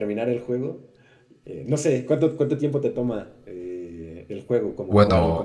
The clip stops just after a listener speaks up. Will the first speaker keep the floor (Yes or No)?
No